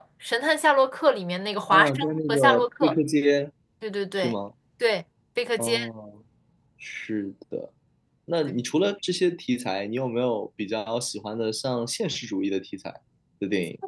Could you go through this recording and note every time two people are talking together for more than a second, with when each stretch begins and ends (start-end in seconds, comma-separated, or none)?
1.7-2.9